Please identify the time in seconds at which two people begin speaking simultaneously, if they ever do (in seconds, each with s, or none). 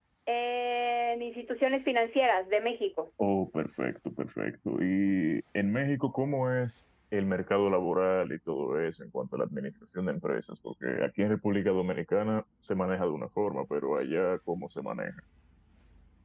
none